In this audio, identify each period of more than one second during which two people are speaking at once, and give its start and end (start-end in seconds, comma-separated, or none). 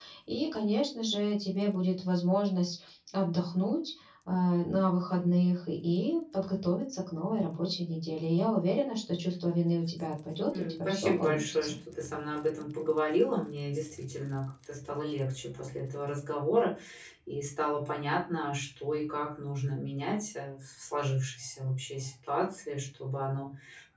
10.5-11.7